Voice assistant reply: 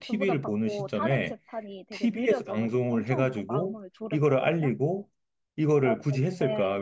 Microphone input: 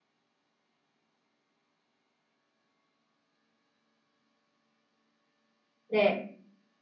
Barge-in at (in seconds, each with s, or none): 5.9 s